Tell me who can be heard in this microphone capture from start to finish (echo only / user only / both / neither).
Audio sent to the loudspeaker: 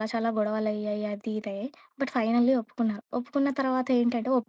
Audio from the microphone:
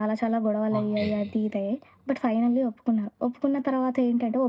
both